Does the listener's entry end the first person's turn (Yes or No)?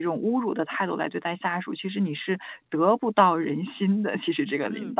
Yes